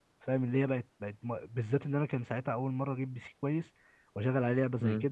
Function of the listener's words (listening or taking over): listening